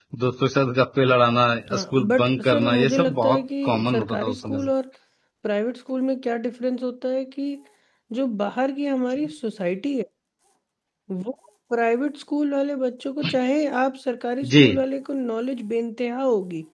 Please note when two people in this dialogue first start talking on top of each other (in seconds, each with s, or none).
1.7 s